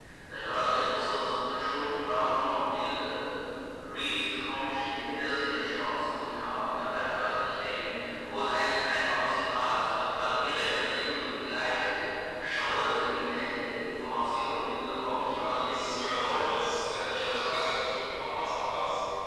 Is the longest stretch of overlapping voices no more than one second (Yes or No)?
No